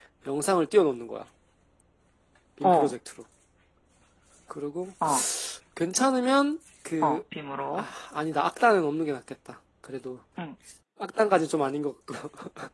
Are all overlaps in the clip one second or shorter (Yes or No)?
Yes